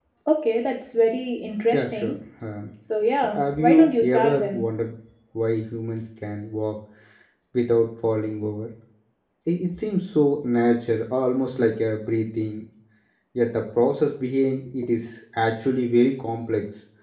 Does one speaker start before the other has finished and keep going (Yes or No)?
Yes